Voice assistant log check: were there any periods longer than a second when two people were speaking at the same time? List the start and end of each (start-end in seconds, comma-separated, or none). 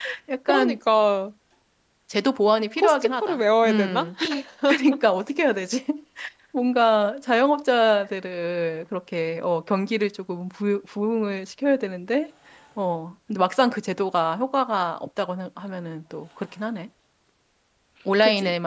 2.8-4.1